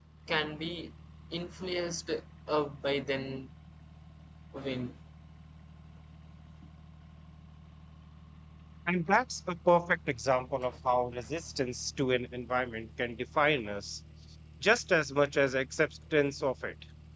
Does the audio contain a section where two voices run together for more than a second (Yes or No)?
No